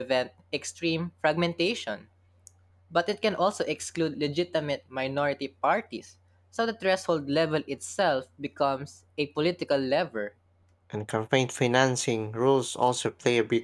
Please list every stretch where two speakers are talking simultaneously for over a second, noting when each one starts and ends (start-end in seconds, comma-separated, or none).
none